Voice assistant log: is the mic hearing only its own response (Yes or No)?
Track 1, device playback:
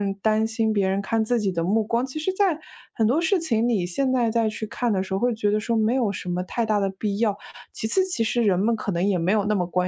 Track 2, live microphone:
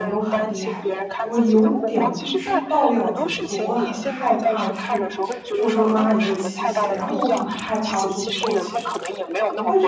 No